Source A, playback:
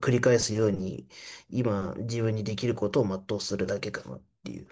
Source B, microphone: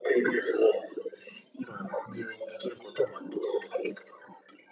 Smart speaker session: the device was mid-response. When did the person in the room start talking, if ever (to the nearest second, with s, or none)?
none